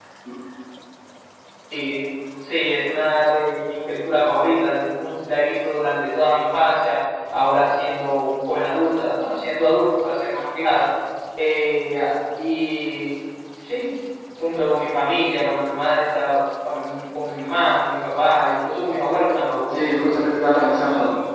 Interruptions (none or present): present